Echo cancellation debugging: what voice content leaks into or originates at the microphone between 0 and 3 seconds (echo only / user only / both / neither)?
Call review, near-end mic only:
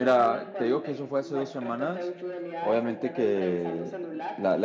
both